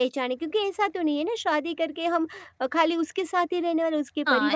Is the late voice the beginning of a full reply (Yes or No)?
Yes